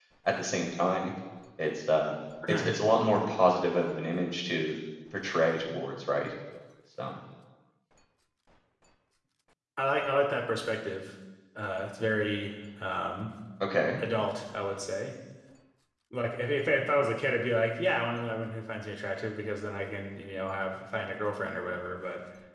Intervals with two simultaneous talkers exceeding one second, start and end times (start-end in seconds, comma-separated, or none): none